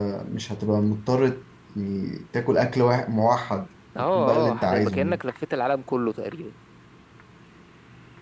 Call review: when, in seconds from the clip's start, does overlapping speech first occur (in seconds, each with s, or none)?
4.0 s